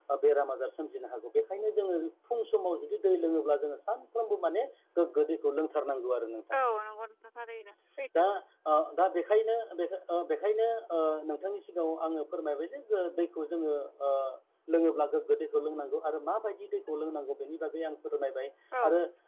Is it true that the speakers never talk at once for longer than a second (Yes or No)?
Yes